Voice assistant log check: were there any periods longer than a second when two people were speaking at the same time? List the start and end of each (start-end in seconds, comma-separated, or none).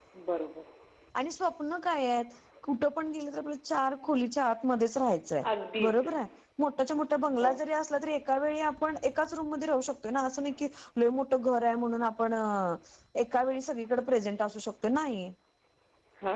none